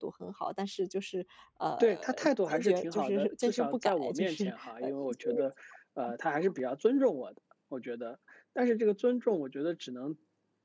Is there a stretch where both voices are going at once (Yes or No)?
Yes